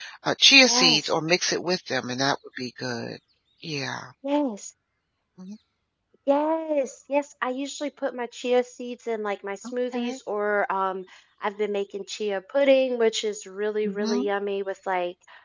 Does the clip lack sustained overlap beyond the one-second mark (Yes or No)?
Yes